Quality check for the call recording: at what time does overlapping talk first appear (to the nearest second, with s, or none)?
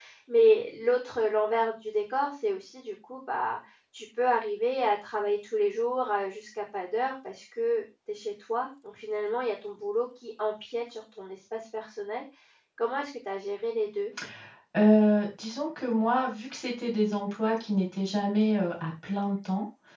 none